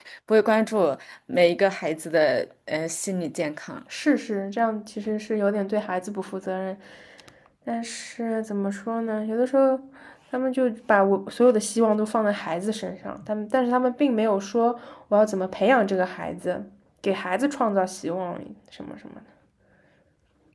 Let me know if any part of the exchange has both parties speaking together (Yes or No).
No